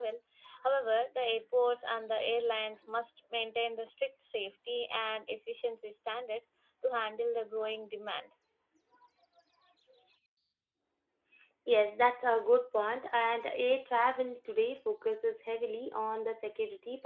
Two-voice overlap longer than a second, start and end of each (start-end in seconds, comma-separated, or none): none